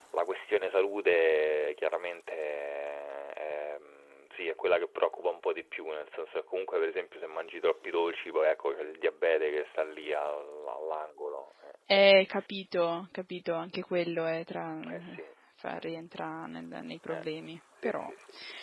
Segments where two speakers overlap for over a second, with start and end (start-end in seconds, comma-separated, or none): none